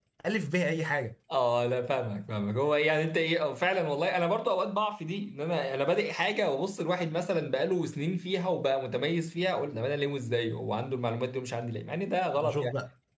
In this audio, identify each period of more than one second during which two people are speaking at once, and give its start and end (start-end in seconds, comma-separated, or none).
none